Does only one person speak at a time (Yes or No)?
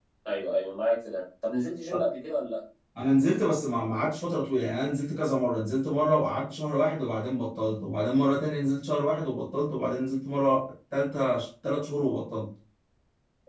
Yes